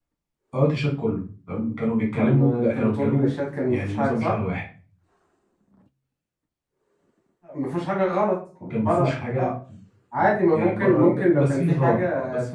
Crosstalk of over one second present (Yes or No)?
Yes